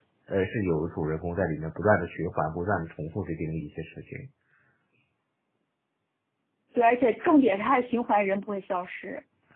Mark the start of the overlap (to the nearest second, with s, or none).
none